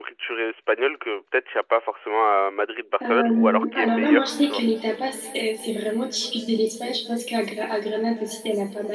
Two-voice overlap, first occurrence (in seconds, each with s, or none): 3.0 s